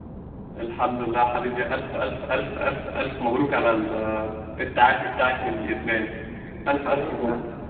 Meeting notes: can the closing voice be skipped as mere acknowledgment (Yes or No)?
No